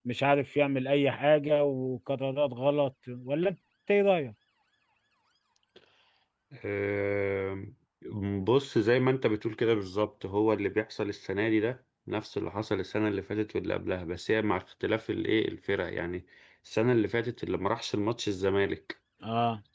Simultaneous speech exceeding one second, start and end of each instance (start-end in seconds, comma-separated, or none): none